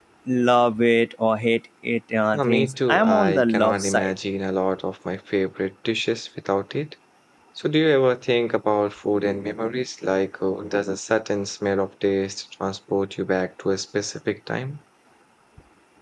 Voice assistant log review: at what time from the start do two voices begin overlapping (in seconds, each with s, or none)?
2.3 s